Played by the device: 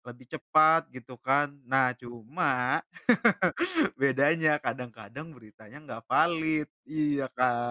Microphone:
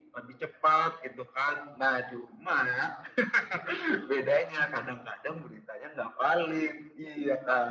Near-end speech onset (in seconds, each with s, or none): none